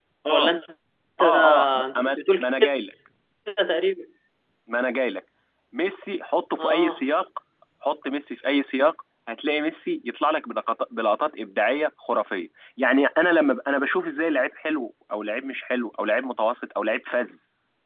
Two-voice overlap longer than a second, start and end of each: 1.2-2.7

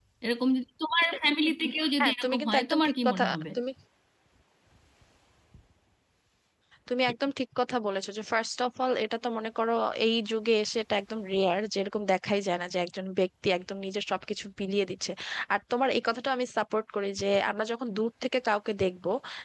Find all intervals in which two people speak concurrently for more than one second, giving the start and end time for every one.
2.0-3.4

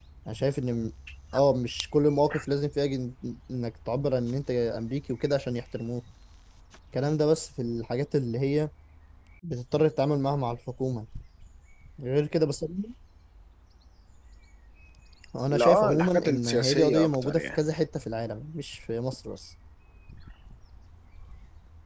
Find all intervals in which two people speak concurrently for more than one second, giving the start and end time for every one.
15.5-17.6

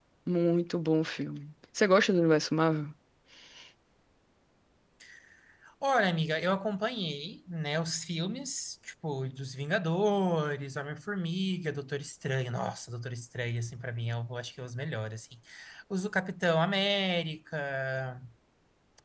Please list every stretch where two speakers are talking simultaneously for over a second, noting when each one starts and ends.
none

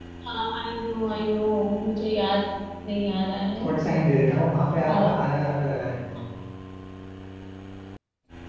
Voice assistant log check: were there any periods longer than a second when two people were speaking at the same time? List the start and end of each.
none

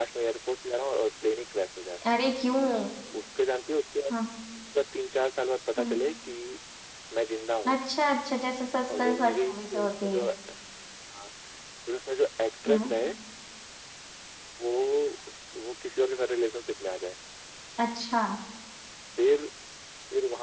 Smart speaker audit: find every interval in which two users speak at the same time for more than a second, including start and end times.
8.9-10.2

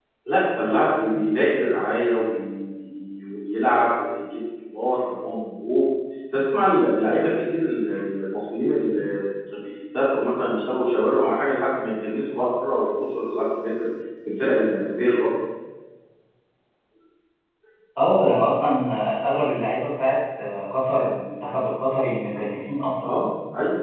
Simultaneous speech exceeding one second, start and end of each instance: none

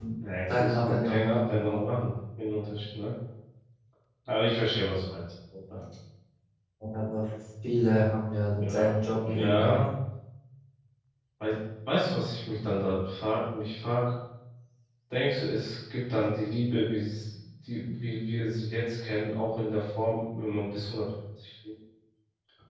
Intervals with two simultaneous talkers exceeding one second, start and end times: 0.6-1.8, 8.5-9.8

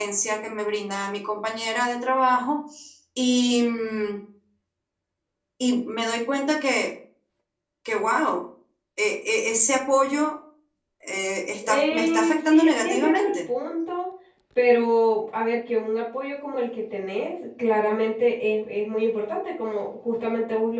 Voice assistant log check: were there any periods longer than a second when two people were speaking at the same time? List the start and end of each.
11.7-13.3

